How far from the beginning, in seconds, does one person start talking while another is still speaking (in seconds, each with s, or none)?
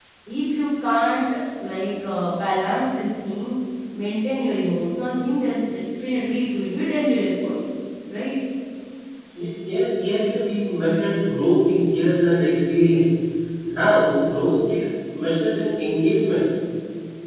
none